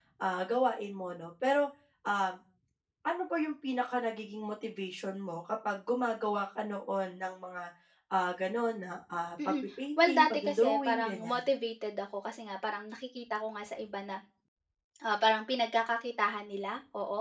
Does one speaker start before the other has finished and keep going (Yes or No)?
Yes